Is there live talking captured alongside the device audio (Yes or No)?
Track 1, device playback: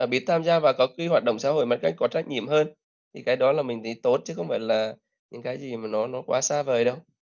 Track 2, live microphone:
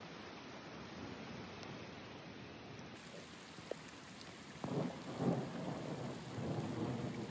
No